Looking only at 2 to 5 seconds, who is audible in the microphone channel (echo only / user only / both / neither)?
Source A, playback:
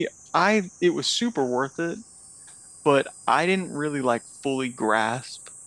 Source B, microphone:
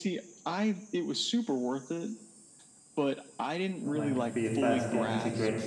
both